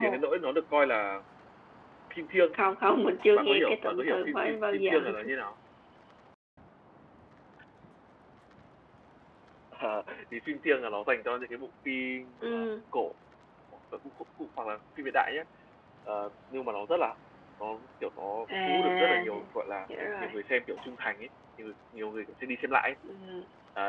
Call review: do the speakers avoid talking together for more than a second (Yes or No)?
No